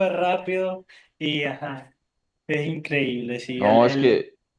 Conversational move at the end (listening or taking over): taking over